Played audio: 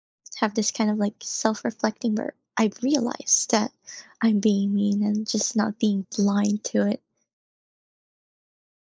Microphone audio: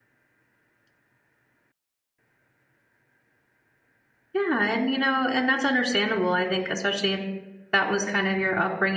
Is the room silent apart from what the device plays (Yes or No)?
No